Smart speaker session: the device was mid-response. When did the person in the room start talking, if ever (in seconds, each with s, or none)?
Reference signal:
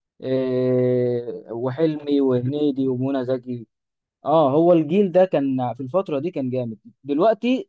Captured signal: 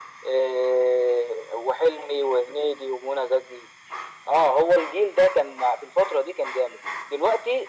none